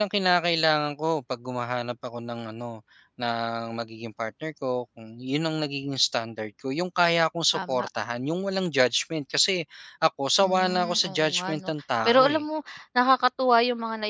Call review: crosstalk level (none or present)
present